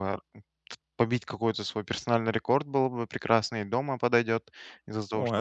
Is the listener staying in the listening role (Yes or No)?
Yes